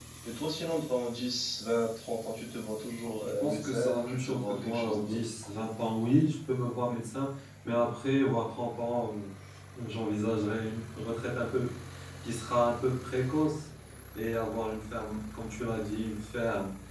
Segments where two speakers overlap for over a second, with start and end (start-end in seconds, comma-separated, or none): 3.2-5.2